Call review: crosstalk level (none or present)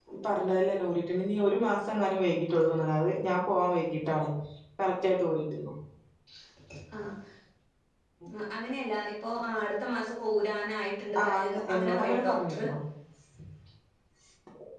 present